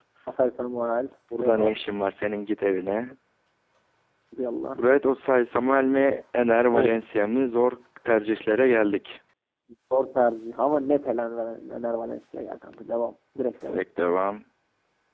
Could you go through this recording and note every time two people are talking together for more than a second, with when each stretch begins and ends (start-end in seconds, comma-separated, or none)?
none